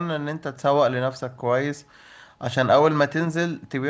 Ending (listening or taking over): listening